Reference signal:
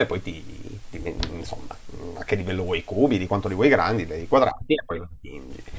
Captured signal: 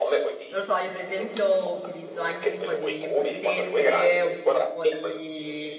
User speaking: Yes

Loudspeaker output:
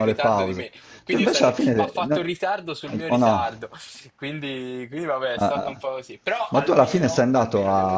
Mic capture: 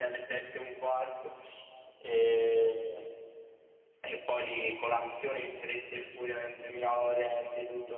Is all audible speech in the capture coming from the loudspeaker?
No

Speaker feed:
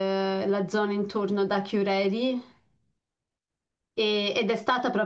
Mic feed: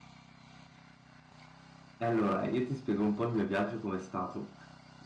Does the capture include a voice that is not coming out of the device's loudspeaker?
Yes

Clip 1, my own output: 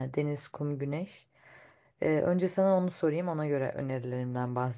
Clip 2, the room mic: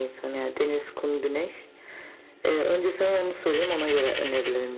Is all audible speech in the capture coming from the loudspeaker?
Yes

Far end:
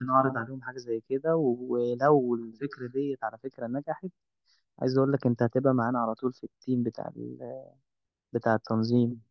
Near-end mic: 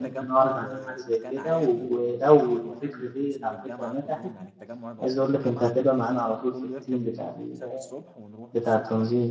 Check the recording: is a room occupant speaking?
Yes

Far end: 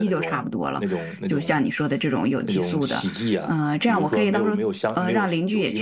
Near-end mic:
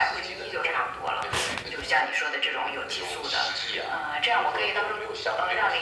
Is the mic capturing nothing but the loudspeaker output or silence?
Yes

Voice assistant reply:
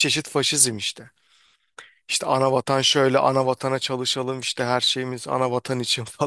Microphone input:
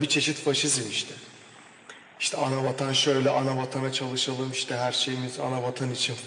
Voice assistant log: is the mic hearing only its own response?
Yes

